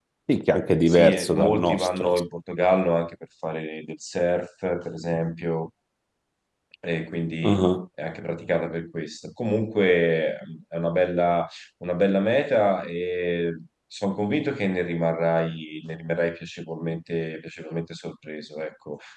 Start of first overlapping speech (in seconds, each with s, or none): 0.9 s